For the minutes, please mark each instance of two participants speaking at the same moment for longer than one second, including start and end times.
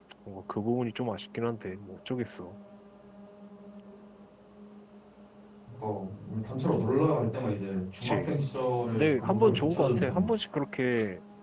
8.9-10.3

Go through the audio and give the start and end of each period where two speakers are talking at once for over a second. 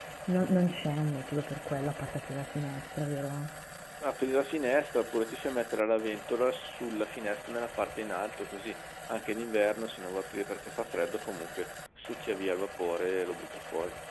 none

